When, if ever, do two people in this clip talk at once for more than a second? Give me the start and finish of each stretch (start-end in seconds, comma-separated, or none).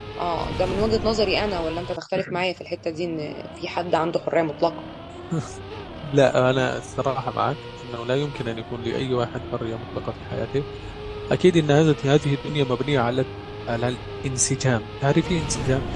none